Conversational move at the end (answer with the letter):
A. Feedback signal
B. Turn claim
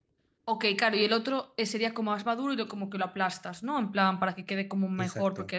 A